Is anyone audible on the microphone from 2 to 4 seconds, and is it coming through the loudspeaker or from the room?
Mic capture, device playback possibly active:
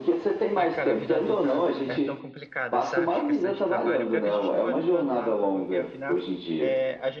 both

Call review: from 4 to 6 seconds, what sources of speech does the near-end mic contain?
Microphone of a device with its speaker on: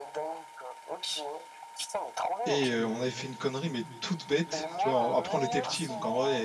both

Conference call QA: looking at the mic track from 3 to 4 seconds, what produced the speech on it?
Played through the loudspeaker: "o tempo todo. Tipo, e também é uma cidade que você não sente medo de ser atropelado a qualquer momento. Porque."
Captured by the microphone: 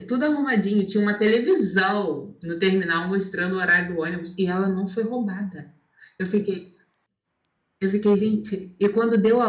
user only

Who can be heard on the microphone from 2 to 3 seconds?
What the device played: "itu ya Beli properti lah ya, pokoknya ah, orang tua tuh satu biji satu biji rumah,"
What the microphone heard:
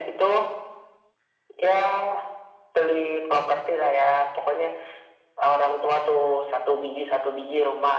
echo only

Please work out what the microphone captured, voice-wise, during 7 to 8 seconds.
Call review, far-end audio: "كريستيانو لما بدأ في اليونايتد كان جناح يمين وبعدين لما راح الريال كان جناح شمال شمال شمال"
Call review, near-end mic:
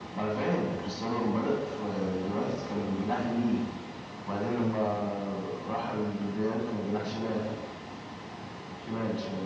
echo only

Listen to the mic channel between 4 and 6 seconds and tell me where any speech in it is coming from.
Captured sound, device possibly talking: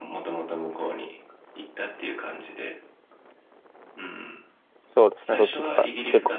both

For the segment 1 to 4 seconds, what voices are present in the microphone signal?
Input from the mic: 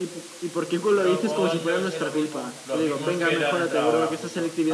both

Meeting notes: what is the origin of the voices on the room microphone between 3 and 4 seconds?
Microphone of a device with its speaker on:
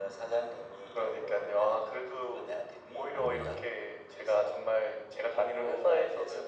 both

